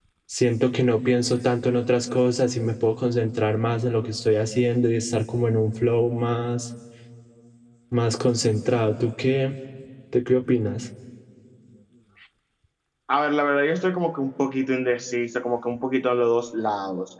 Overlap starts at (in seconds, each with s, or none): none